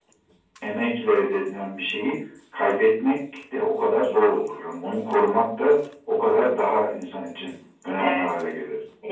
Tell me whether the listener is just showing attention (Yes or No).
No